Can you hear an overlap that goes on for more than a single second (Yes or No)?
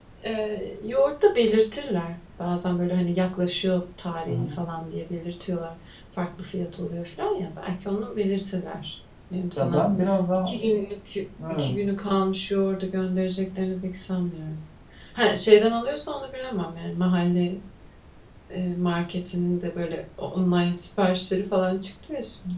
No